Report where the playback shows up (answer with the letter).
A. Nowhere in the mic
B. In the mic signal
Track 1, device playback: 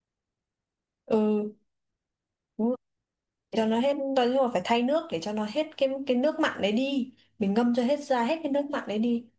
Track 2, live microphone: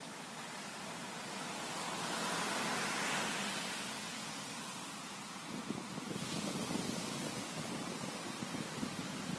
A